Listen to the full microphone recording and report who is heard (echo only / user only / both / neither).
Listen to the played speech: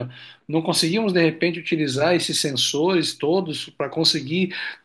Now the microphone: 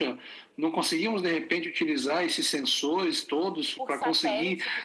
both